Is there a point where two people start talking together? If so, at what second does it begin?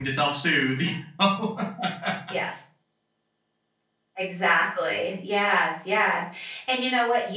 none

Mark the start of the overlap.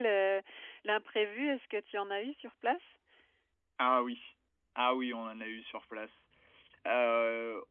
none

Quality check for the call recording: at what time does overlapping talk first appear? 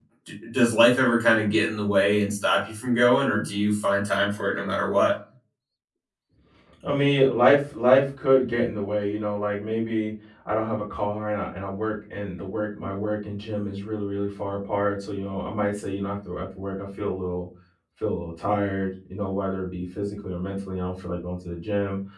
none

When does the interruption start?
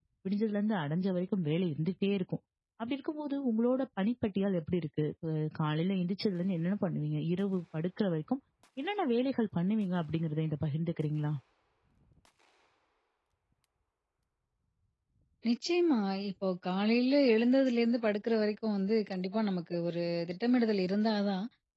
none

